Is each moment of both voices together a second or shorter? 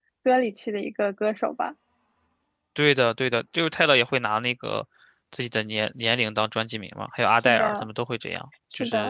Yes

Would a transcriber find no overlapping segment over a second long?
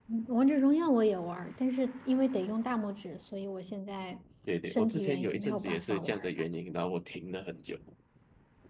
No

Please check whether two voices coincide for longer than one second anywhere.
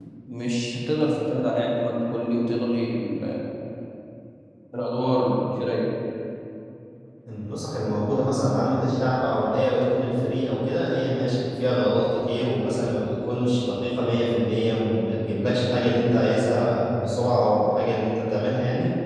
No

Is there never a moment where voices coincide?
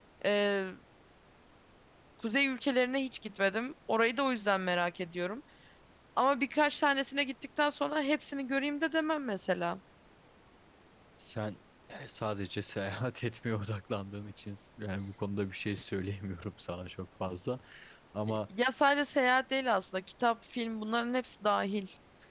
Yes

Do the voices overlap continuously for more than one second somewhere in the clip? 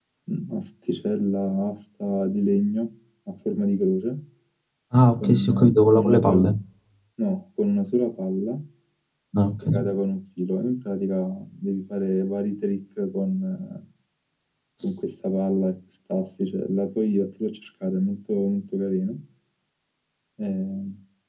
Yes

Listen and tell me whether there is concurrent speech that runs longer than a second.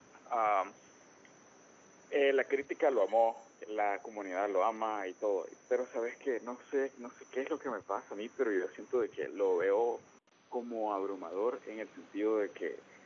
No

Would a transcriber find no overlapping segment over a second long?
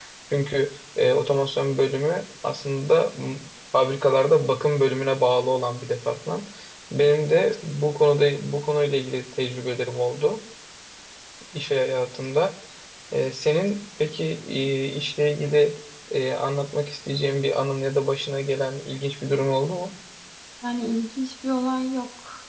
Yes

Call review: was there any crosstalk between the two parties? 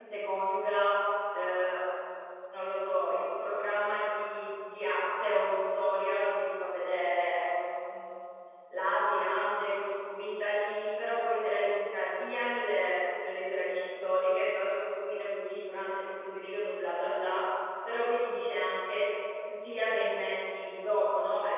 No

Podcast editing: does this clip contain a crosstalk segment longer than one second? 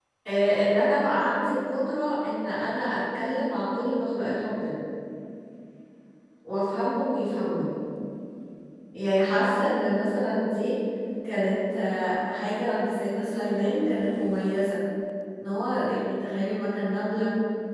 No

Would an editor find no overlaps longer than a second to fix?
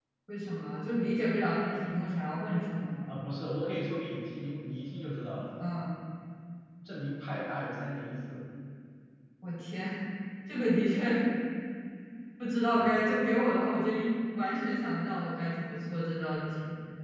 Yes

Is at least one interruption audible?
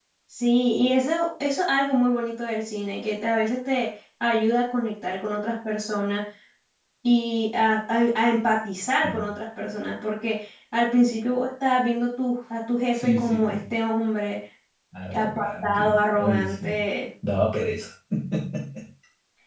Yes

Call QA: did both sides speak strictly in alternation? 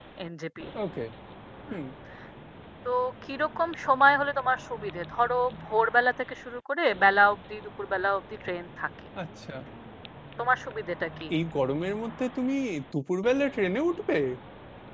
Yes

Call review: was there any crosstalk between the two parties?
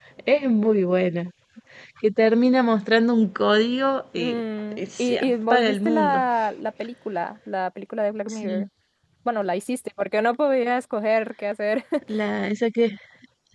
Yes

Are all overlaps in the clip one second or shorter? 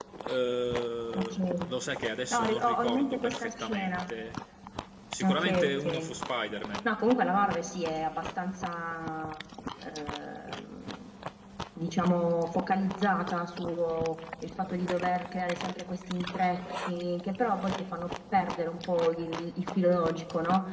No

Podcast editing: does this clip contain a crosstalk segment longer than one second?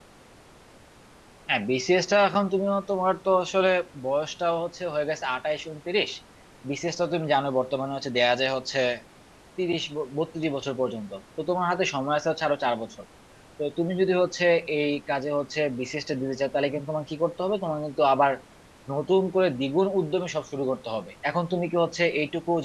No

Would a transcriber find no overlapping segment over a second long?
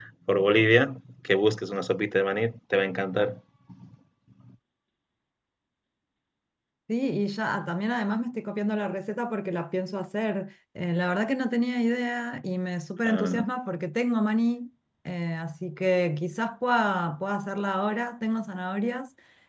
Yes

